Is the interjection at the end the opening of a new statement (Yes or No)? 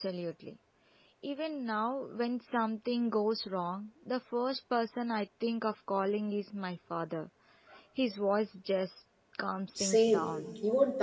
Yes